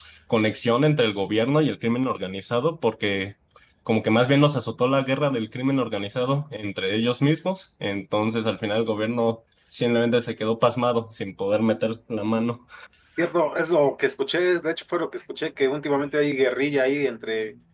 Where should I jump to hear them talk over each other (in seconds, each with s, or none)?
none